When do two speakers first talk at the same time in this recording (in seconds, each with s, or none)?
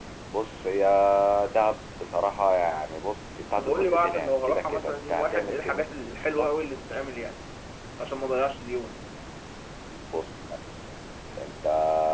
3.6 s